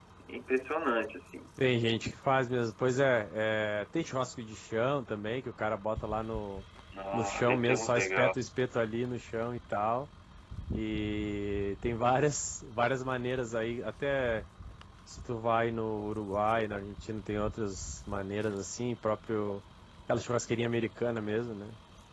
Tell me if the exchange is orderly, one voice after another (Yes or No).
No